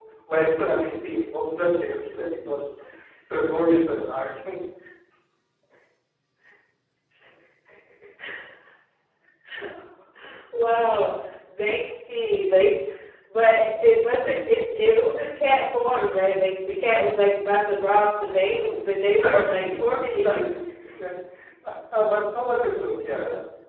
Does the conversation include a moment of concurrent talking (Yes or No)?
Yes